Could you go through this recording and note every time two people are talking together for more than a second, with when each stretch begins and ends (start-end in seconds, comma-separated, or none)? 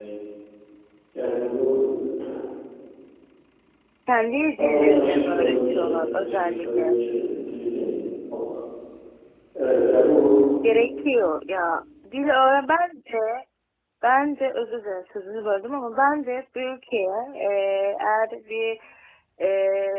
4.6-7.0